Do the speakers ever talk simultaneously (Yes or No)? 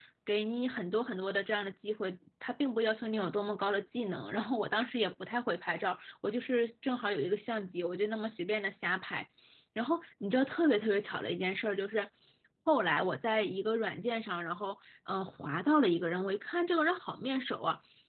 No